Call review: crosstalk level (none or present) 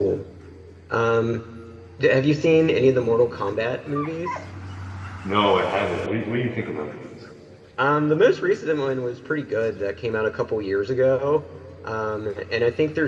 none